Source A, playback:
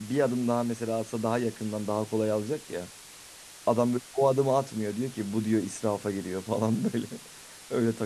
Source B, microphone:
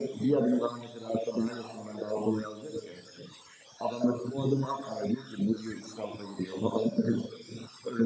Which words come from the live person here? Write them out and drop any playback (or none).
none